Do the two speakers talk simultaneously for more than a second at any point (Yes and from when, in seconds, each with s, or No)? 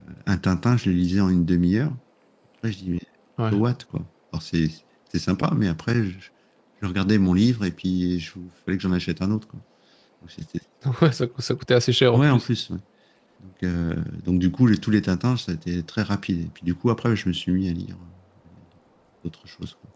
No